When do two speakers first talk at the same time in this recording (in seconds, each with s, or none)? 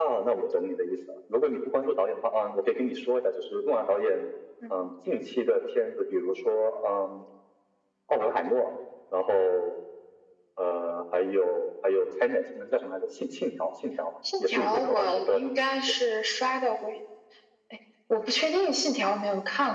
14.2 s